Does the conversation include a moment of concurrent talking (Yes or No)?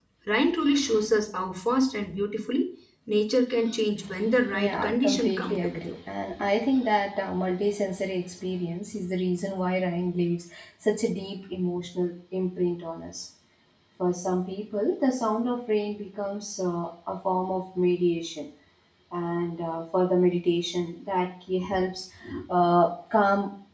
Yes